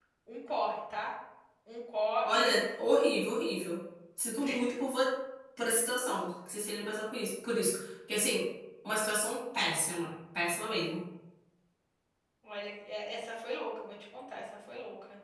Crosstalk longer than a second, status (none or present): none